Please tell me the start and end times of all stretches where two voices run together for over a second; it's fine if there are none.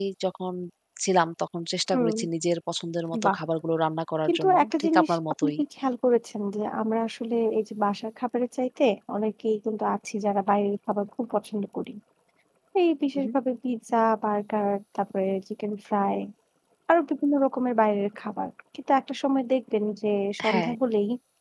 4.3-5.5

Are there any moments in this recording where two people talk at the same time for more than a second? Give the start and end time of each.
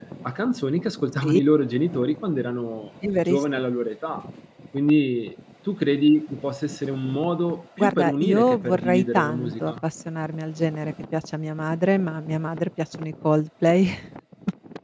7.8-9.7

